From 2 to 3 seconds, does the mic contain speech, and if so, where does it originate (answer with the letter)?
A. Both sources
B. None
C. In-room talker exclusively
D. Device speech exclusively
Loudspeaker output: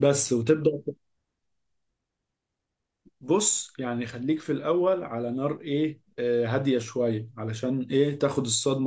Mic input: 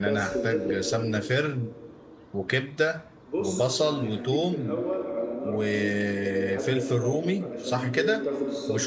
C